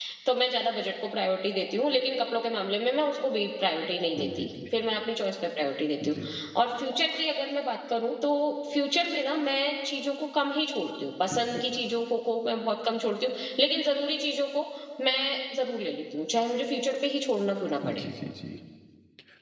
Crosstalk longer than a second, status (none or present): none